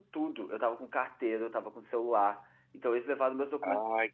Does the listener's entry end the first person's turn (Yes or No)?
Yes